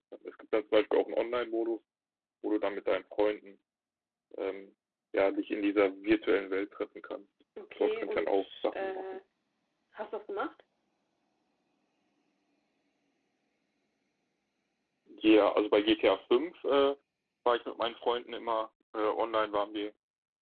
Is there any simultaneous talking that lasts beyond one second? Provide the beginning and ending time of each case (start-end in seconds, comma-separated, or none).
7.8-9.2